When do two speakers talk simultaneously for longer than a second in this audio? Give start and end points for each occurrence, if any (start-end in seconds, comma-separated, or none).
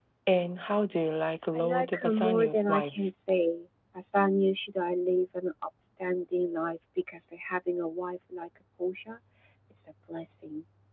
1.6-3.1